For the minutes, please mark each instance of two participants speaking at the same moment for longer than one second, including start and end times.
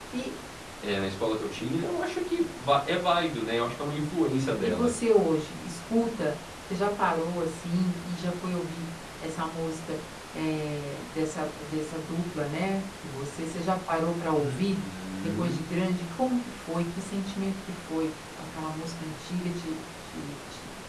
none

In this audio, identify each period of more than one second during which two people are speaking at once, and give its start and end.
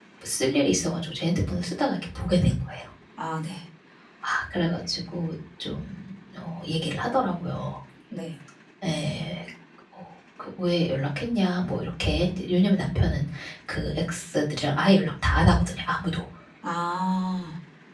none

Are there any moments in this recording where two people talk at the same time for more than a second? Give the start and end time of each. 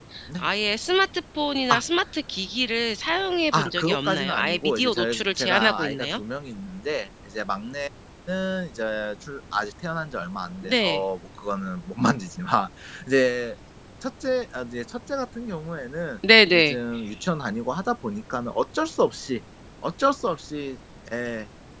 3.5-6.2

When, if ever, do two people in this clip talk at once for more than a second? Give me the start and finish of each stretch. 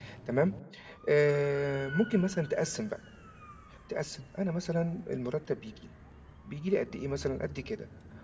none

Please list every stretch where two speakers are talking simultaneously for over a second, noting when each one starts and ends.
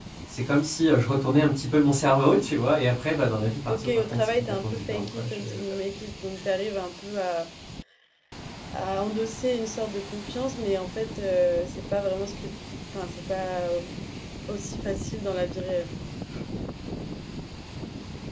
3.7-5.6

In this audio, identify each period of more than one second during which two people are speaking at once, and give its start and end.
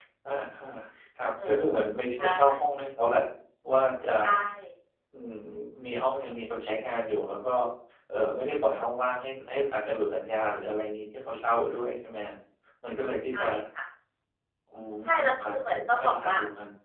15.0-16.3

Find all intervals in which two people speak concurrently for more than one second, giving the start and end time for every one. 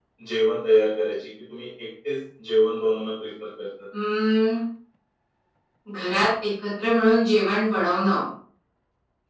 none

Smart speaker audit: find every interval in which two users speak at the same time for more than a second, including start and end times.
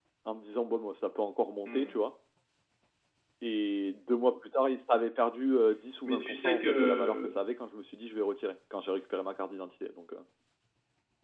6.0-7.3

